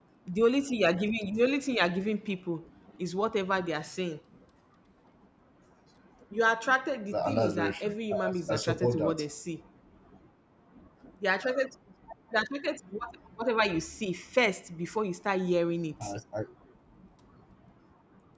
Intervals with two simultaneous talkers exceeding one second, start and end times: 7.1-9.2

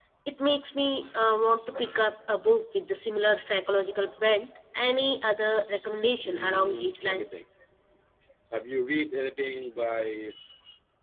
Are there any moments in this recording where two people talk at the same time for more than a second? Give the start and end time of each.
6.2-7.4

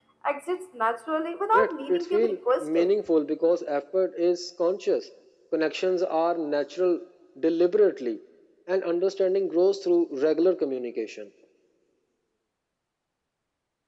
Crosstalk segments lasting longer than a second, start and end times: 1.5-2.9

